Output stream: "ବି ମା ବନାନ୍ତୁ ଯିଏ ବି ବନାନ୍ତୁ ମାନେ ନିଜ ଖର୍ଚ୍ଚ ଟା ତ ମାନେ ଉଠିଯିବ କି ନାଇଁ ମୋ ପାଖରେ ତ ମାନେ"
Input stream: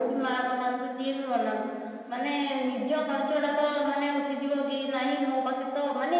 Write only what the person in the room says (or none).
none